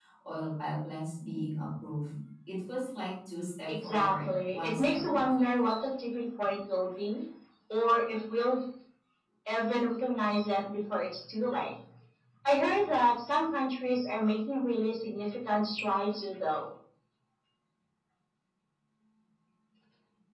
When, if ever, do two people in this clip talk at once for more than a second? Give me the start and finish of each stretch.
3.7-5.3

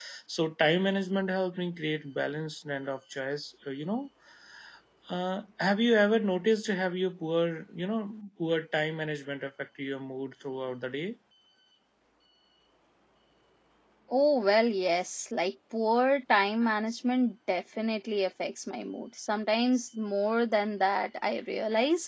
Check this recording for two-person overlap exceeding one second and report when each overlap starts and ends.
none

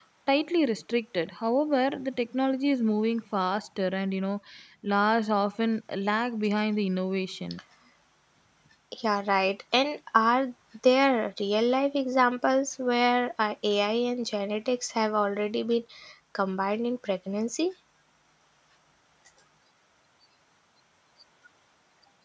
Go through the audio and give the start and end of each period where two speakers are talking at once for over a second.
none

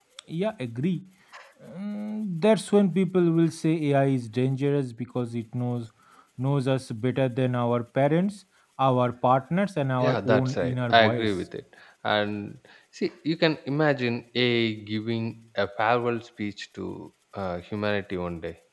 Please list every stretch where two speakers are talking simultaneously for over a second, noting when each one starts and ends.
10.0-11.3

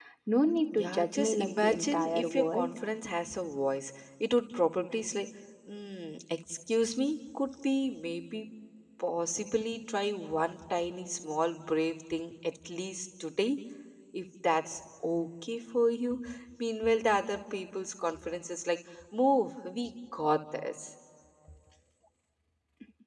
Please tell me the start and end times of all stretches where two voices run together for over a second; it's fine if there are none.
0.7-2.7

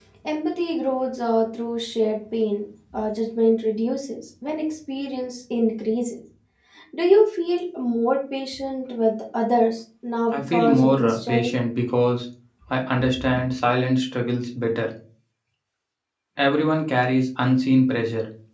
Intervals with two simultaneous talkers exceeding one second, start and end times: 10.3-11.6

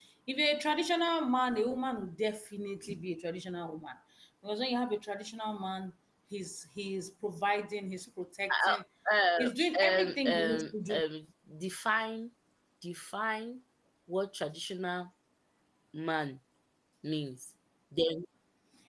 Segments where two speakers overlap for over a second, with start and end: 9.8-11.0

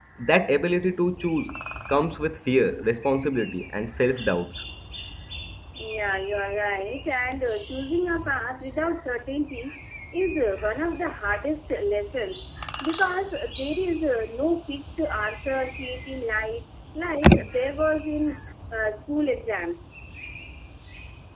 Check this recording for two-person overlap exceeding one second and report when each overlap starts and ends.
none

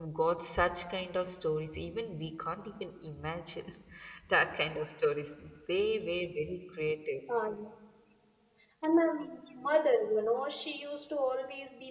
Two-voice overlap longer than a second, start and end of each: none

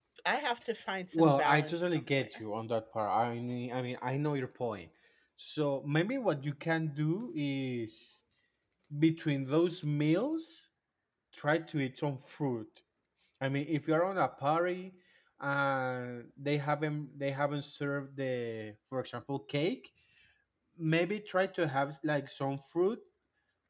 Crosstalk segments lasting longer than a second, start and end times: 1.1-2.4

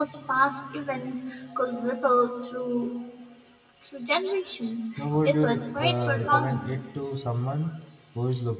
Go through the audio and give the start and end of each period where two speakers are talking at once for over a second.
5.0-6.7

